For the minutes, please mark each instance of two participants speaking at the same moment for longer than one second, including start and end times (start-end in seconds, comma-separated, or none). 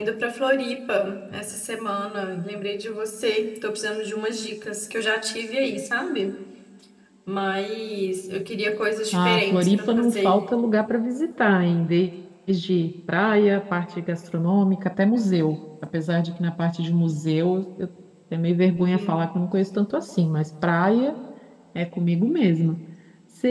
9.1-10.5